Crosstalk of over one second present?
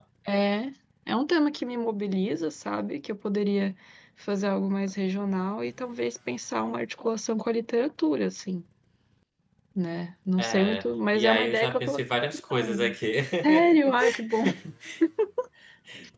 Yes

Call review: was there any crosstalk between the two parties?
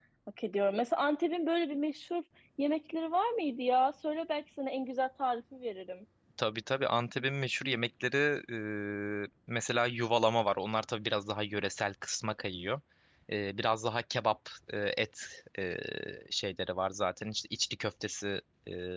No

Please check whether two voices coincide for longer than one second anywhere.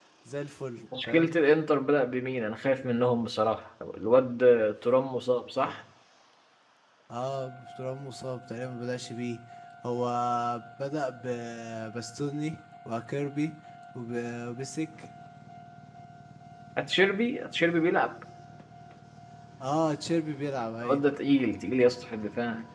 No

